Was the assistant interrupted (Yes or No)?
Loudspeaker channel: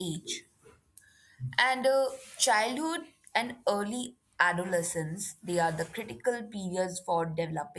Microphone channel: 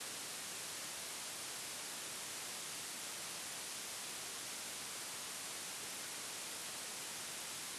No